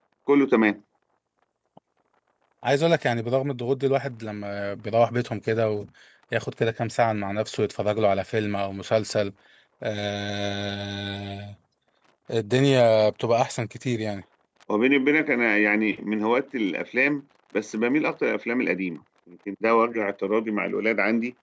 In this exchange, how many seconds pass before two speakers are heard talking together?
none

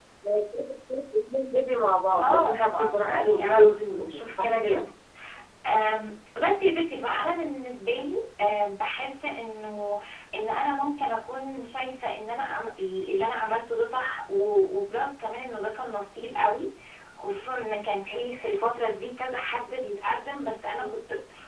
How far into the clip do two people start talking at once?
2 s

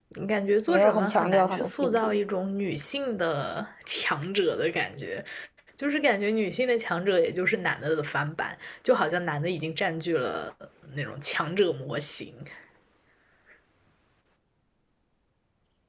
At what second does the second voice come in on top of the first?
1 s

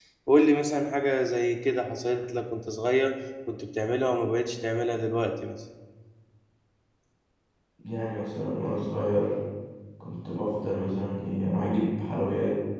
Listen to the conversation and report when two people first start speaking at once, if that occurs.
none

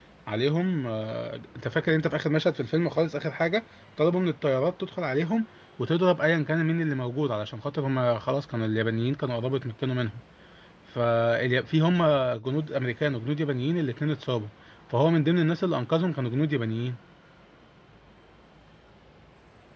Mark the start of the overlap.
none

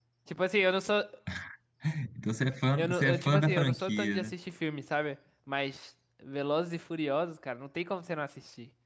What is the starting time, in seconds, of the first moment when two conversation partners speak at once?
3 s

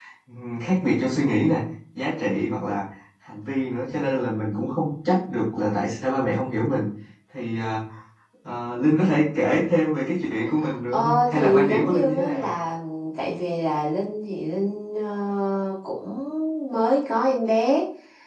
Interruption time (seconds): 11 s

